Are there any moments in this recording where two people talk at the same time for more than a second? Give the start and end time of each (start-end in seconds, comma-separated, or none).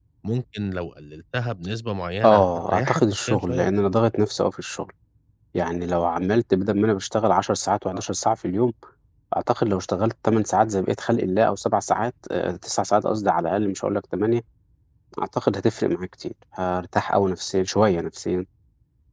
2.2-3.7